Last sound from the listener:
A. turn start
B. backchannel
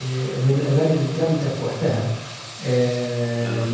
B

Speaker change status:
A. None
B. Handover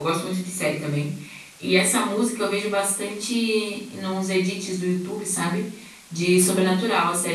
A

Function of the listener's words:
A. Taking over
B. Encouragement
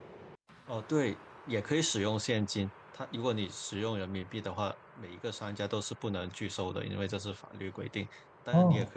B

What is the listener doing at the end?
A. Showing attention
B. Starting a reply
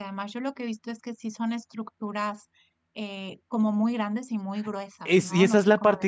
B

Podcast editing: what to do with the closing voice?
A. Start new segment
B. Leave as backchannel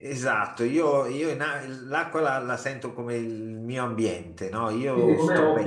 A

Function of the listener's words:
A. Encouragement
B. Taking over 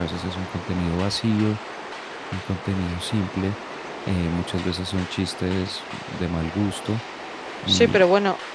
B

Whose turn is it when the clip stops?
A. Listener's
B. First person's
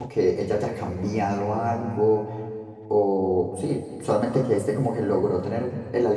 B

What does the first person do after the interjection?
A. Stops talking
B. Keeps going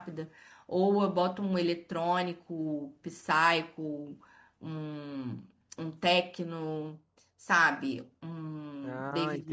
A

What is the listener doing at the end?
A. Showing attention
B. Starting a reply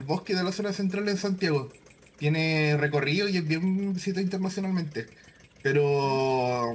A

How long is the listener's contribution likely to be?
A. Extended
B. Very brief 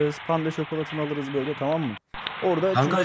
A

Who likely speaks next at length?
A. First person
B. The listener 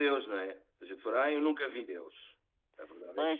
B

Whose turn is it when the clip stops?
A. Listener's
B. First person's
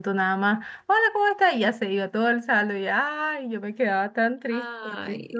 B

